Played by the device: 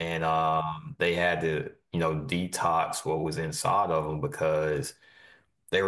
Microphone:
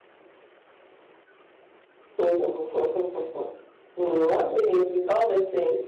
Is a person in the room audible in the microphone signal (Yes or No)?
Yes